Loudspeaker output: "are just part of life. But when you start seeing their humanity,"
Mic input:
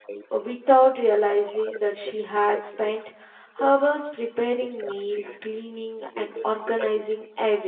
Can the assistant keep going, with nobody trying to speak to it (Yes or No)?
No